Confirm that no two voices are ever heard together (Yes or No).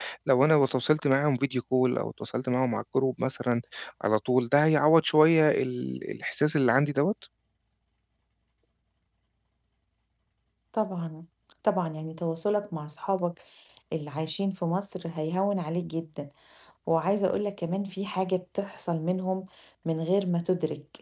Yes